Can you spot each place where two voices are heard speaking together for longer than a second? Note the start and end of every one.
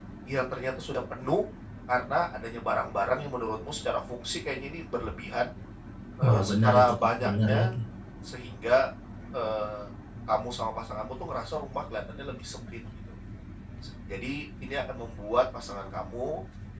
6.2-7.7

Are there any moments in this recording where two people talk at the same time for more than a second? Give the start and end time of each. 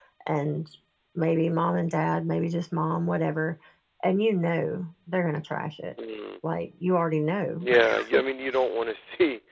none

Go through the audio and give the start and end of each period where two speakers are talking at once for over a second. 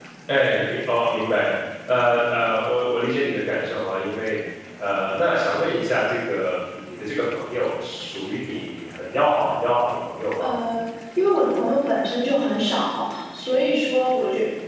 none

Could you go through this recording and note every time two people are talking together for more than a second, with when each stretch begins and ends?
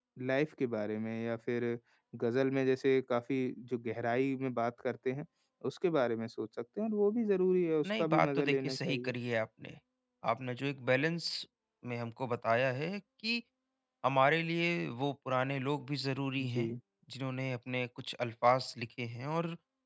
7.8-9.1

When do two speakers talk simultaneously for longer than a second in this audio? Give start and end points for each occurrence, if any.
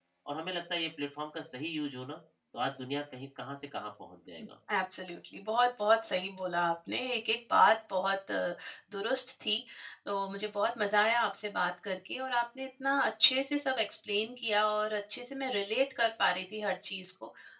none

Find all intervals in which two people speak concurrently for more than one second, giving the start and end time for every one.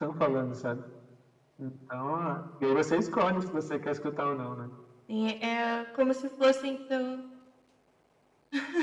none

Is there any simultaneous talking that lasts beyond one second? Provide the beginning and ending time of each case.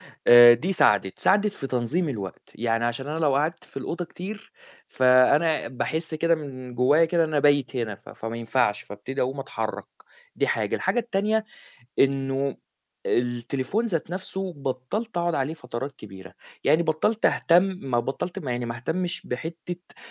none

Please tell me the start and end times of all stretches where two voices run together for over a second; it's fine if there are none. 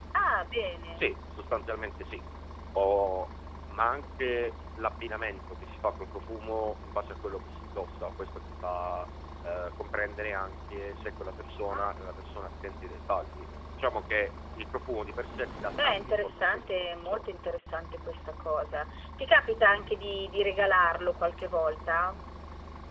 15.8-17.3

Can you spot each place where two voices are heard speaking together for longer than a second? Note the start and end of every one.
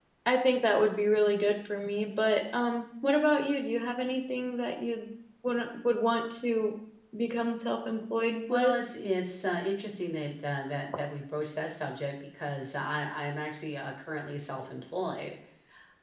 none

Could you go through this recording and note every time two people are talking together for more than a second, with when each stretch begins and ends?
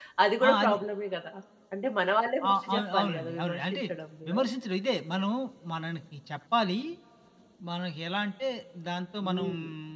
2.5-3.8

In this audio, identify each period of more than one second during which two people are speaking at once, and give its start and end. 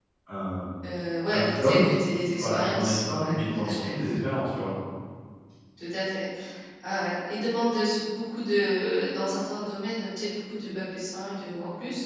2.4-3.9

